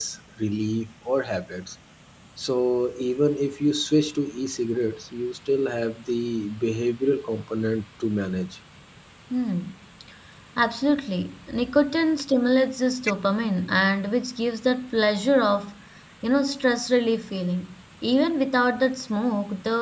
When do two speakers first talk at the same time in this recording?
none

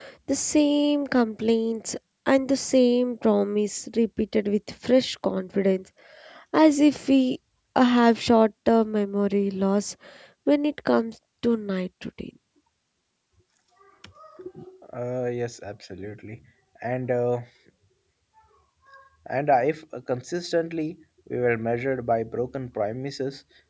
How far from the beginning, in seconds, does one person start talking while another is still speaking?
none

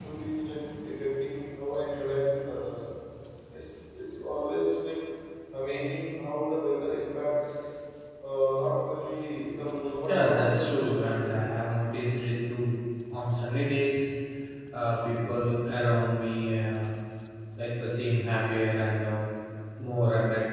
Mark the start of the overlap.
10 s

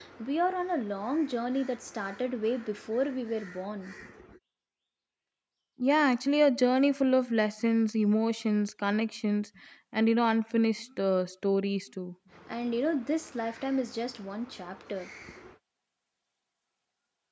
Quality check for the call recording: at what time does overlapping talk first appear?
none

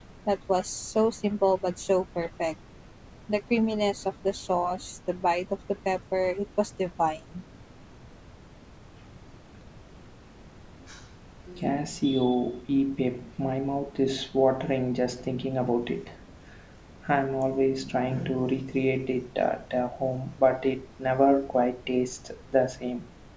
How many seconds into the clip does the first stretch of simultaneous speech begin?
none

